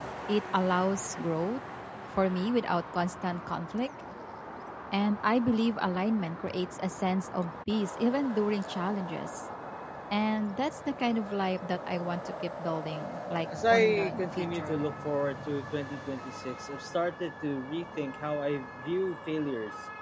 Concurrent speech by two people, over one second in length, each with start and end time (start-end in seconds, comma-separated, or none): 13.6-14.8